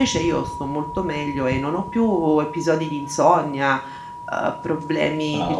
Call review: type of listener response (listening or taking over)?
listening